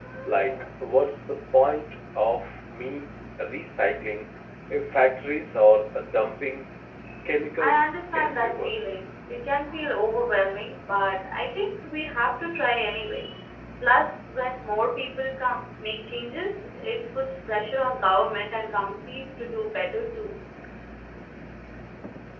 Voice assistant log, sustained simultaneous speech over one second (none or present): present